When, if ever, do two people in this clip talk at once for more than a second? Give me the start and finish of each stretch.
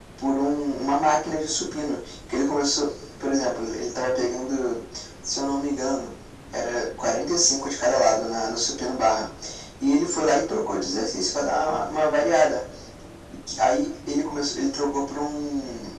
none

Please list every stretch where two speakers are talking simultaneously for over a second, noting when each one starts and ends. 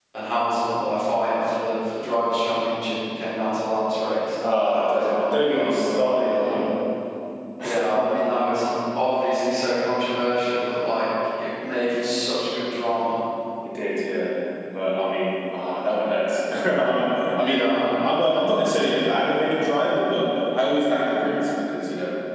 4.6-6.7

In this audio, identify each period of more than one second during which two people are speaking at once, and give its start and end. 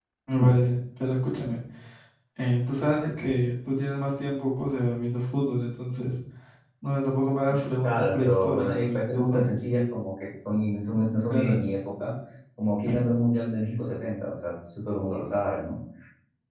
7.8-9.5

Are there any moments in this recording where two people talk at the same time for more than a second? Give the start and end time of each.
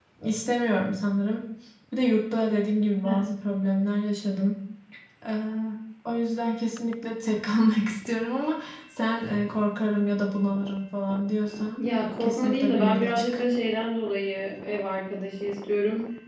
12.2-13.4

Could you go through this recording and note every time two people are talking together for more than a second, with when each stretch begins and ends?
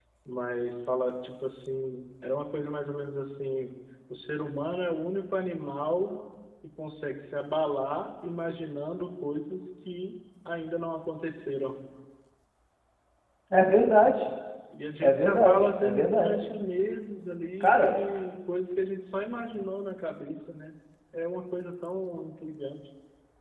15.0-16.3

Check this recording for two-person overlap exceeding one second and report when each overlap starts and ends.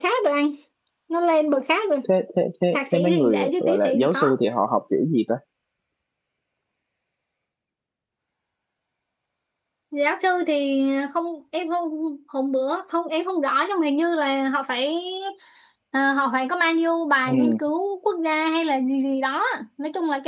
2.7-4.3

